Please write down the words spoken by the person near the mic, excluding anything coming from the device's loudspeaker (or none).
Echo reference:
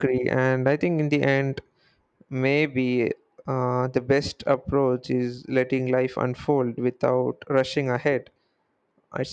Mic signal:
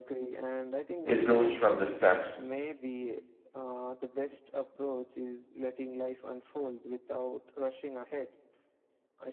it grows from the steps